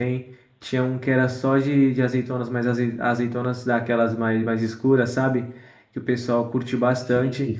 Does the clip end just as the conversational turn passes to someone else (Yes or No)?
No